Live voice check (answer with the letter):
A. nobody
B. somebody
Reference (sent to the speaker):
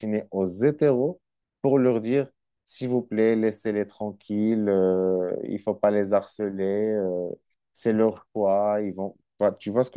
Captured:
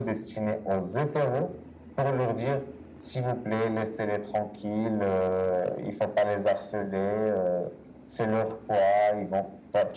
A